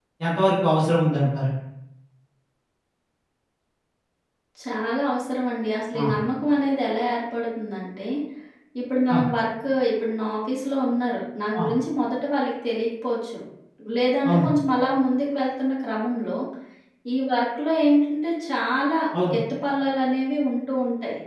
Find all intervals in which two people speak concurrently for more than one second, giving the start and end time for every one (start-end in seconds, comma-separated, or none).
none